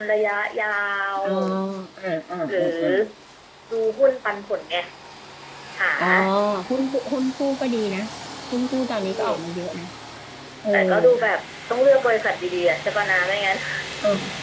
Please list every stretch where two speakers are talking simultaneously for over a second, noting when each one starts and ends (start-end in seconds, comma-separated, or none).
none